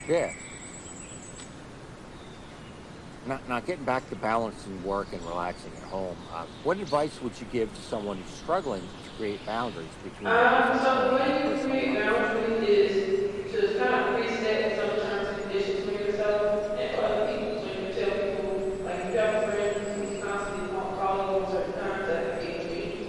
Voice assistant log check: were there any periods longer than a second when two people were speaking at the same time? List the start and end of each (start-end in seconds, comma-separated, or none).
10.2-12.0